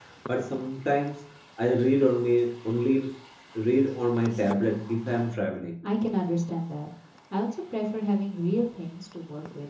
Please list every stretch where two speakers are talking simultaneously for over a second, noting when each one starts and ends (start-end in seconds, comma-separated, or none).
none